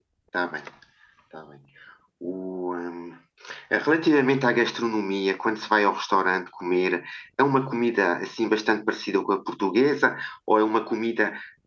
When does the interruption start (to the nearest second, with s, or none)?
none